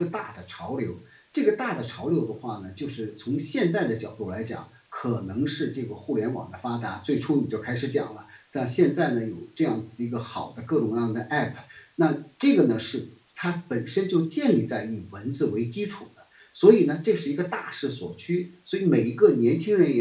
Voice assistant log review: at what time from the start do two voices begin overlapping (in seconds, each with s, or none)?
none